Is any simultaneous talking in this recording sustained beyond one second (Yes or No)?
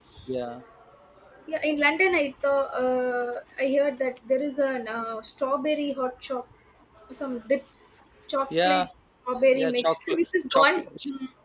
Yes